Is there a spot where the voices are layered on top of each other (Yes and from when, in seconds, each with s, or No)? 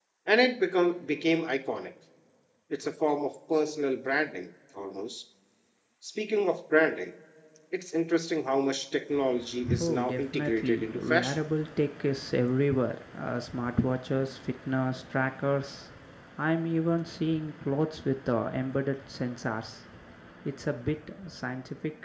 Yes, from 9.6 s